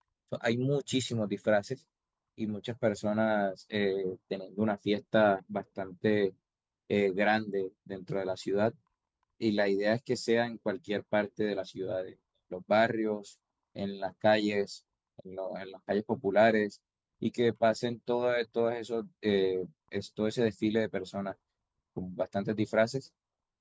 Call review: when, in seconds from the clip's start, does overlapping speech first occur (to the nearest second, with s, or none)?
none